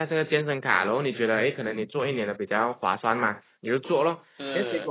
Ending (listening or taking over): listening